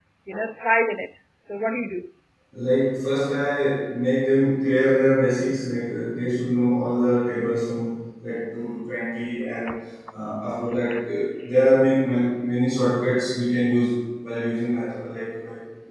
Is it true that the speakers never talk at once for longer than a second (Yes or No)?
Yes